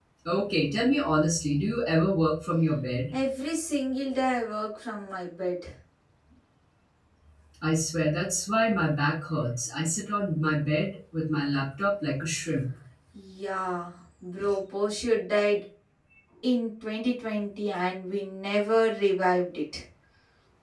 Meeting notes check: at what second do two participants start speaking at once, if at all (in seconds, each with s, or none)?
none